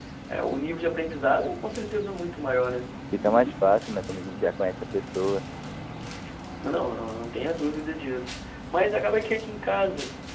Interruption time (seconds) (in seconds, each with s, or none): none